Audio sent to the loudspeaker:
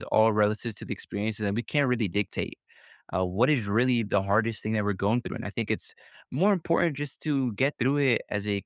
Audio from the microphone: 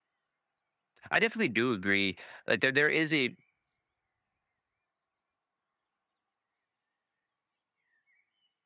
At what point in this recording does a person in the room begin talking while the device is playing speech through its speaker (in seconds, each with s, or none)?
1.1 s